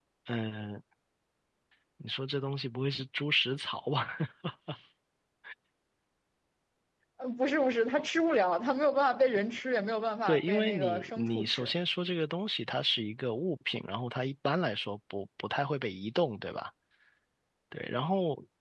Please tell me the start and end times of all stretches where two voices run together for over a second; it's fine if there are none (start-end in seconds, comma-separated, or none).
10.3-11.7